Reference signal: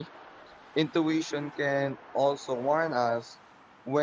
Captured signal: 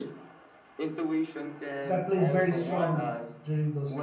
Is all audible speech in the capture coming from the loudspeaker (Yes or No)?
No